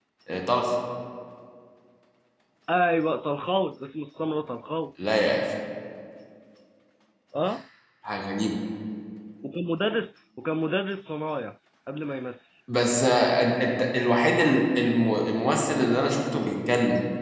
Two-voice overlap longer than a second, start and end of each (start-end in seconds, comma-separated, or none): none